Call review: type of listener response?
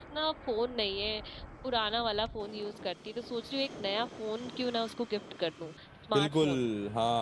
taking over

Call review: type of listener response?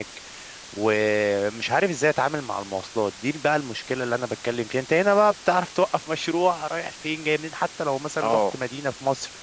listening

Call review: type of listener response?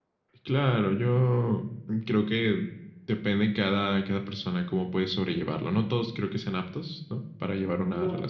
taking over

